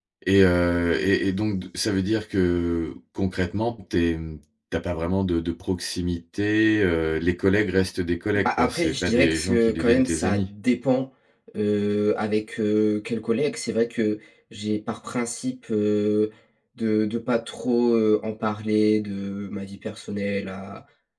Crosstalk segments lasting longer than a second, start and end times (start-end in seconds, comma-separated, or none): 8.3-10.5